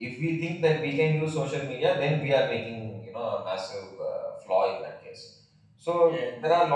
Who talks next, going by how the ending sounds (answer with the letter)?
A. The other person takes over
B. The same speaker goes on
B